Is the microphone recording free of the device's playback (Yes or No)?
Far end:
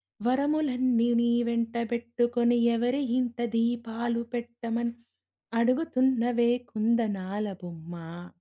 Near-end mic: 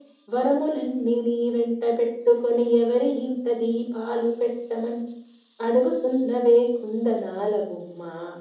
No